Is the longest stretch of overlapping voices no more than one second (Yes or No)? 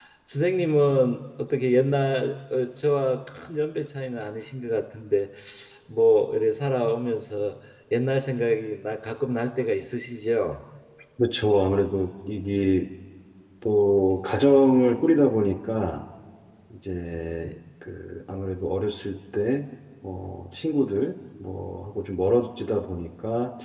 Yes